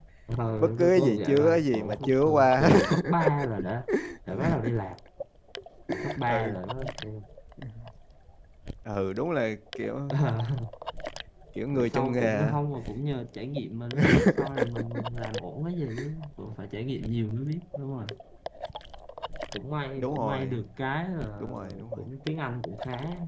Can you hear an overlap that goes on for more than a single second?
Yes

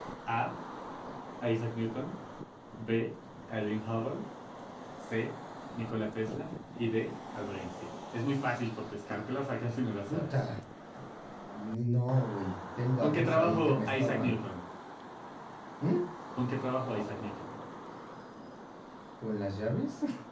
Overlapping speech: Yes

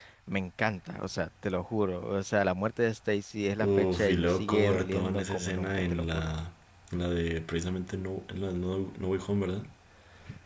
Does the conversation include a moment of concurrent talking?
Yes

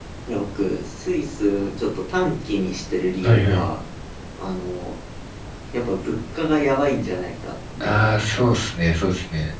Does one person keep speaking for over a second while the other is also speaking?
No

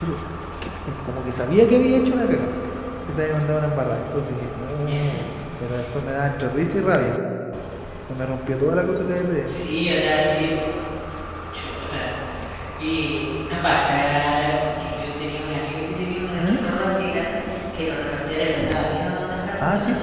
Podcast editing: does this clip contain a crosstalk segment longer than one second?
No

